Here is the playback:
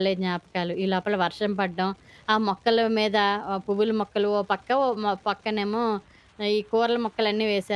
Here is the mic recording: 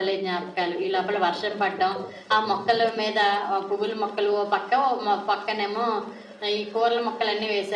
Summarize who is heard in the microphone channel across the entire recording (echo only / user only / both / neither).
echo only